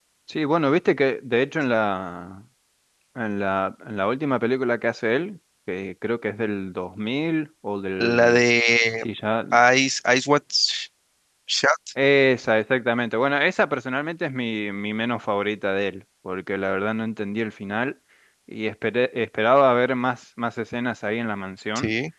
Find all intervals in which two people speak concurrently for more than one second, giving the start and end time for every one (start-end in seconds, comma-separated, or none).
none